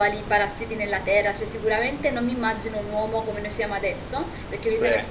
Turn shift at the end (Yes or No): No